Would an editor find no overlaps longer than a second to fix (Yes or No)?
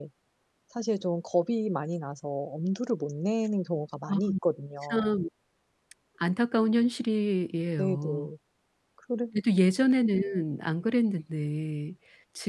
Yes